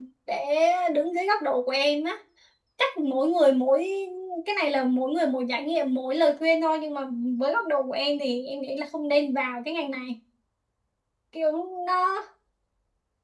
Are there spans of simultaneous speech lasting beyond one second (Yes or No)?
No